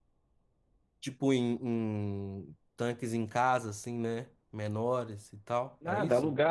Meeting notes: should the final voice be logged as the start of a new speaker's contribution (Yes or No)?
Yes